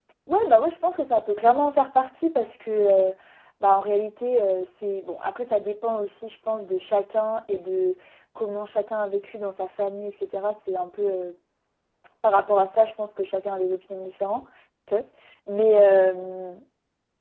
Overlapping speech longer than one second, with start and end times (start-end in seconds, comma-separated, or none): none